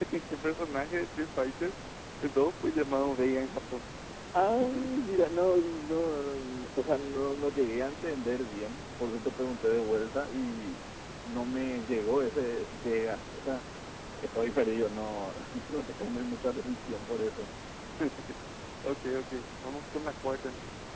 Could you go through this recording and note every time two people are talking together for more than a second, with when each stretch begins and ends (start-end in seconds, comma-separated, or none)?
none